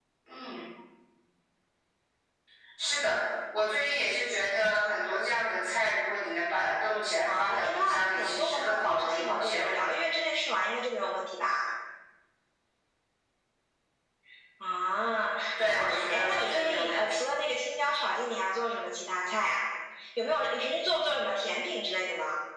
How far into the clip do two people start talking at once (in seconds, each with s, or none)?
7.2 s